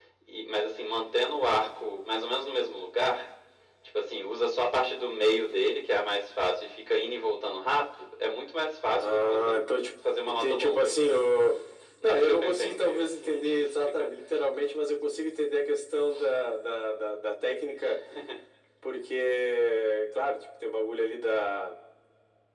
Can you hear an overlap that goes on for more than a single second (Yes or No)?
Yes